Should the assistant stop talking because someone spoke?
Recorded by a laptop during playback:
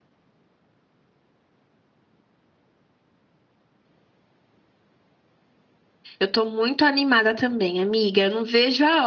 Yes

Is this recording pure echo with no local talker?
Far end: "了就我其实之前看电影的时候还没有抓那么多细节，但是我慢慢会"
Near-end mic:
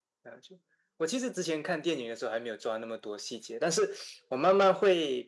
Yes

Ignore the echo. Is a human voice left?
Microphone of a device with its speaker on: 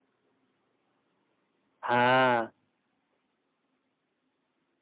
Yes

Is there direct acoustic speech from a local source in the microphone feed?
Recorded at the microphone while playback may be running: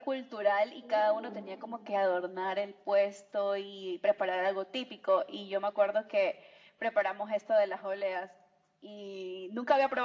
Yes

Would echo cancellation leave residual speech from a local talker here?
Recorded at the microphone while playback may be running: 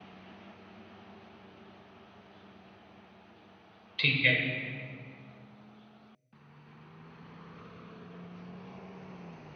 Yes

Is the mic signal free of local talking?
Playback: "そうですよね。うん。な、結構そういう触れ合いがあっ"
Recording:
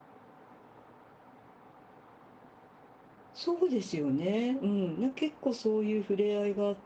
Yes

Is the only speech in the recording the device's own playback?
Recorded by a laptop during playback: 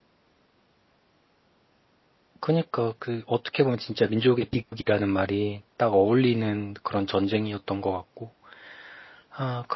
No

